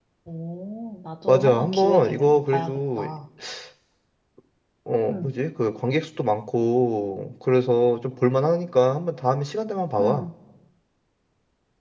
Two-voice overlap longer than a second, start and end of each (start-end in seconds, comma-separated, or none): 1.3-3.0